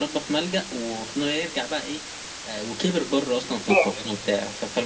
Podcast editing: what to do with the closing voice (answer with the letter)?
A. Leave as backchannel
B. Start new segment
A